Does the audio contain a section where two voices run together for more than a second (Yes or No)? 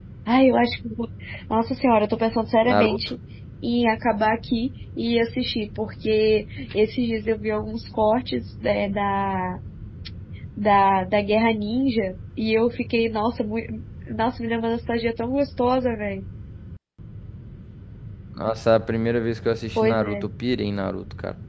No